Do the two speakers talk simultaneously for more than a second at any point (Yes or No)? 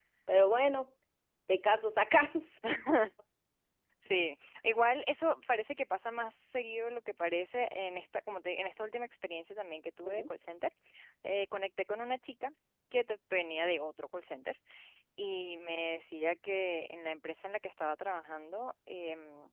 No